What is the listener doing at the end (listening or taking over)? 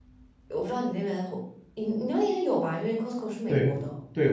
taking over